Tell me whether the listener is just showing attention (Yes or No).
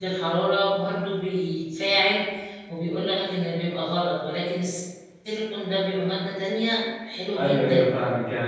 No